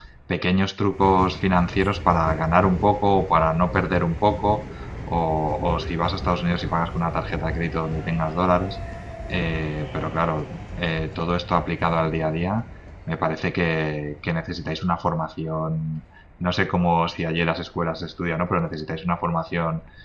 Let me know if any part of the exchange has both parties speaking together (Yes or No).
No